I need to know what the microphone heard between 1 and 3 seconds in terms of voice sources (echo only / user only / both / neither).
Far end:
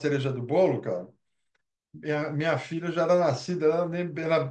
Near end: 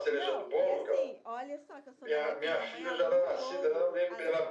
both